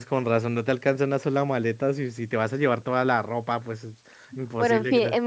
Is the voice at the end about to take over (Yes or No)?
Yes